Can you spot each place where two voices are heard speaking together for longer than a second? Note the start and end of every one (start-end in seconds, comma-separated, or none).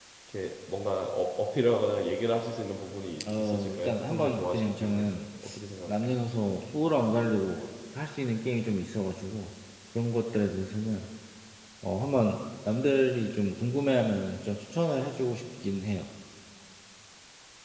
3.4-5.1